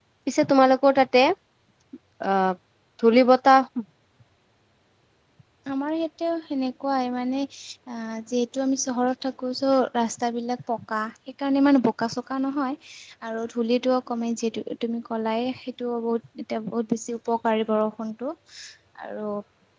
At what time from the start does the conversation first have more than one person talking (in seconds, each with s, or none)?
none